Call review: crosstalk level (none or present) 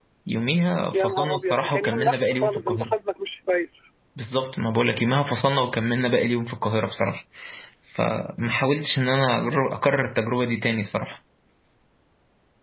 present